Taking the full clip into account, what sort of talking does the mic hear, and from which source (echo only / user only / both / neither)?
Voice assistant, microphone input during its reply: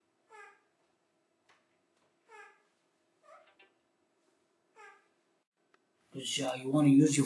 user only